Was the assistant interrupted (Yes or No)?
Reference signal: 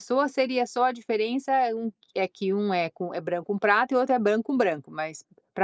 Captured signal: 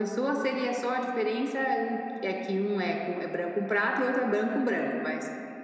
No